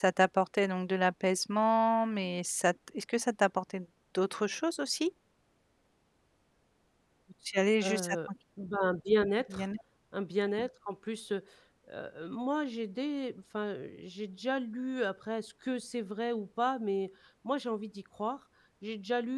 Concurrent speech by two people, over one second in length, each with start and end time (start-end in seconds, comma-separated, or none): none